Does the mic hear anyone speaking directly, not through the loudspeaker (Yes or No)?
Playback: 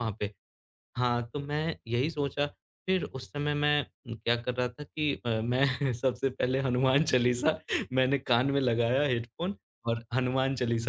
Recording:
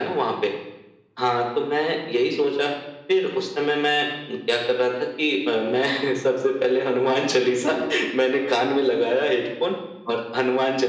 No